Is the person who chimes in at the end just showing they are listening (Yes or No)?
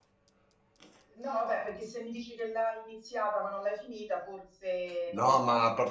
No